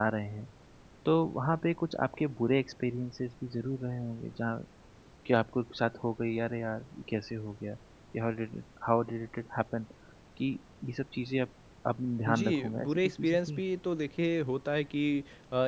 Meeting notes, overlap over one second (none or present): present